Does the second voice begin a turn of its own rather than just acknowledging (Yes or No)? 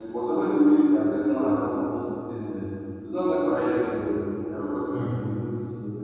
No